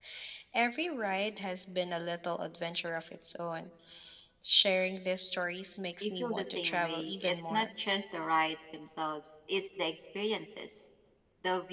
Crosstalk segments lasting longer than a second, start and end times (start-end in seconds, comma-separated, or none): 6.0-7.7